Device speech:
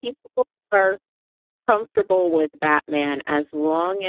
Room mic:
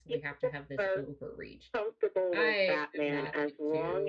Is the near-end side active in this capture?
Yes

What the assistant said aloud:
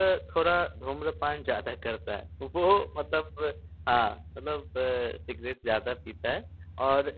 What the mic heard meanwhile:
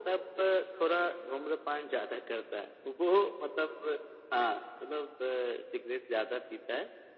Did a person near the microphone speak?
No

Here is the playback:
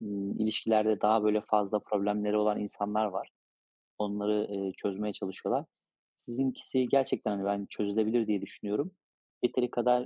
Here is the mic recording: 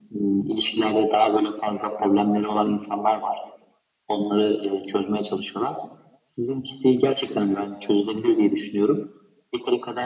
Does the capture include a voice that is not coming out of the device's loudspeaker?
No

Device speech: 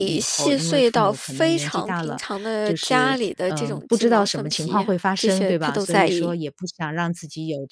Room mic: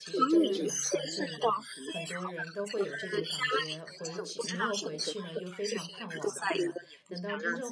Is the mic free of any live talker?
No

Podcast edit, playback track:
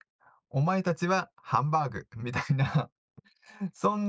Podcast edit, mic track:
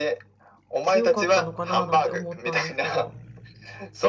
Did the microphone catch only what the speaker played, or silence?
No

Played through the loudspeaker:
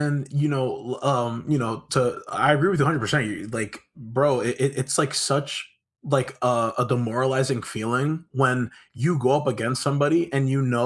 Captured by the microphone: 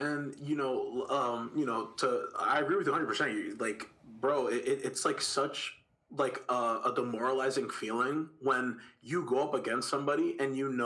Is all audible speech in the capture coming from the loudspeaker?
Yes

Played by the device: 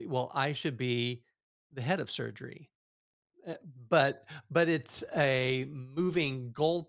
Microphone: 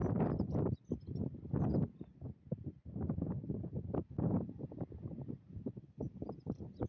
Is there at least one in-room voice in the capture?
No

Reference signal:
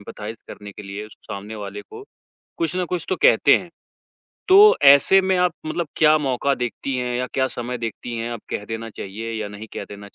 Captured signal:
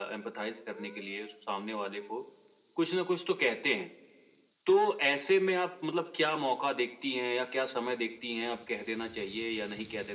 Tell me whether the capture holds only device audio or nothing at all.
Yes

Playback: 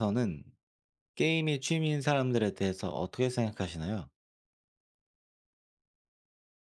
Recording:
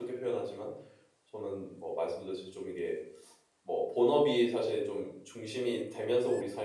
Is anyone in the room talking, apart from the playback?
Yes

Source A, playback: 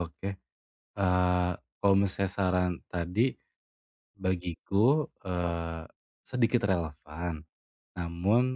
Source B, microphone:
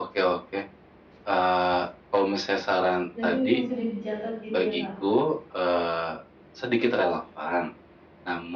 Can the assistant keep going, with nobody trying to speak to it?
No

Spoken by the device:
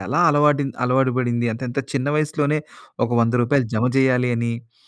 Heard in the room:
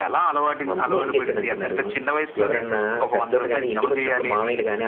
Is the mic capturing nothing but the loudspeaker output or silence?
No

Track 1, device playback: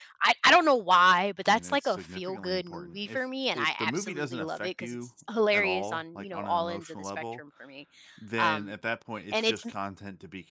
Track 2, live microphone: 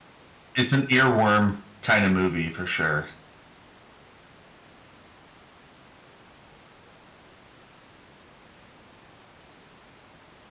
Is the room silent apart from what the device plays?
No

